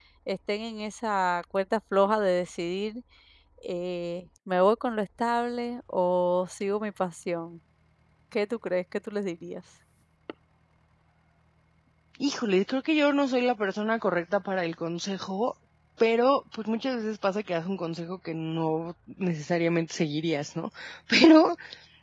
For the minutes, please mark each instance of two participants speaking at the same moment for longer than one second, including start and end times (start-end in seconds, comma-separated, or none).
none